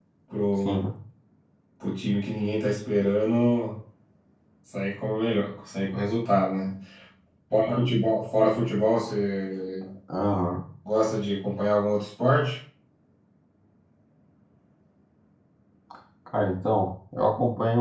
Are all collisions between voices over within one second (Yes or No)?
Yes